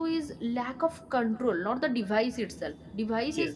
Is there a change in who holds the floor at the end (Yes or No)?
No